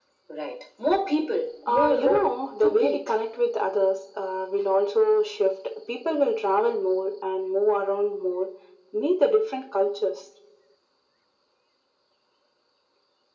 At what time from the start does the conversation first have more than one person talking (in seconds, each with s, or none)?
1.7 s